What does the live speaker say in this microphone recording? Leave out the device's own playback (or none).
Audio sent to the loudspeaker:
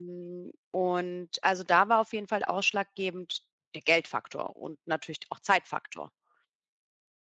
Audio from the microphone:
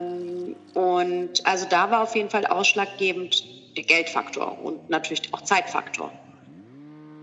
none